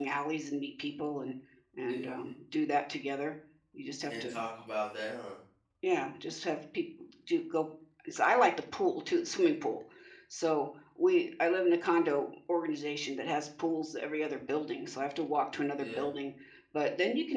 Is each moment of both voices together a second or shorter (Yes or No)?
Yes